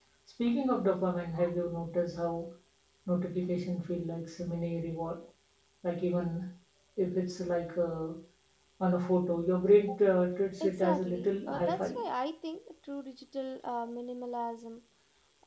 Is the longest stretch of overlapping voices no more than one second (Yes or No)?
No